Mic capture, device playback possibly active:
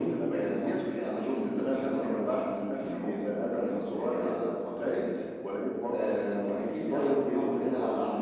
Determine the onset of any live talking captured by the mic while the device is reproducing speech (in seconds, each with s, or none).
none